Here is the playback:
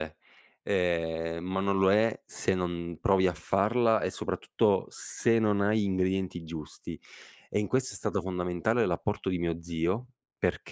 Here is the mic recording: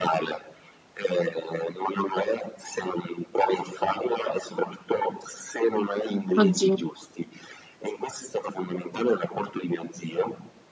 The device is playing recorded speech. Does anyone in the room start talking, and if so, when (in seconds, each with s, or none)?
6.4 s